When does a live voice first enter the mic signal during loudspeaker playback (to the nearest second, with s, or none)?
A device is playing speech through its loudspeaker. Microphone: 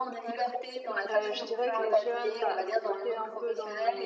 1 s